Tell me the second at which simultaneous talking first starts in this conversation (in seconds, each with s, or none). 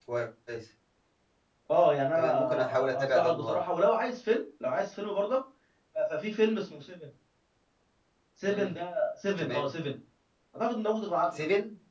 2.2 s